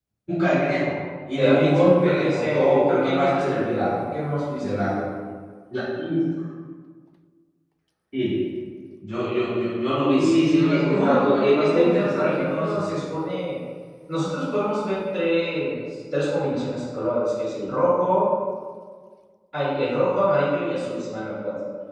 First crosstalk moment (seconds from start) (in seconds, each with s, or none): 1.3 s